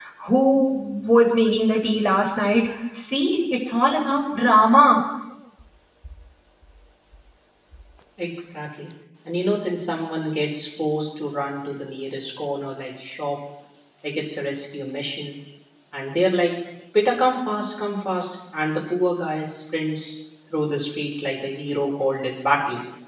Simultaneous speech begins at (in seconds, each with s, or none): none